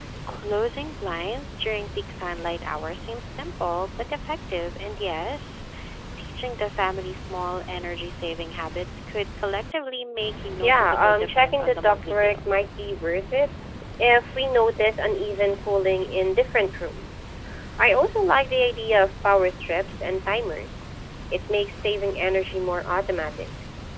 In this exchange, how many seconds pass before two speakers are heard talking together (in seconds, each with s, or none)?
10.6 s